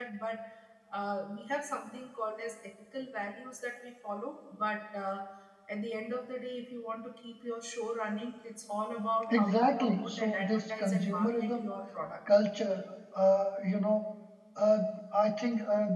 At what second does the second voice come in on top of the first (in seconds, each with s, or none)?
9.3 s